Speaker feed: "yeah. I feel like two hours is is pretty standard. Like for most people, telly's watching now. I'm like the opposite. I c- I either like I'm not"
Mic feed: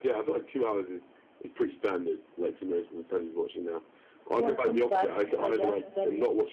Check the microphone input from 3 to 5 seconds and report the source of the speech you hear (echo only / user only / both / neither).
both